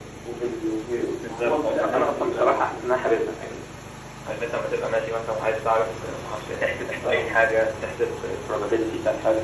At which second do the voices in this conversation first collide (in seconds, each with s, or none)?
1.3 s